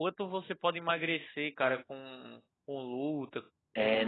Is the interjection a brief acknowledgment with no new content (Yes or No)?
No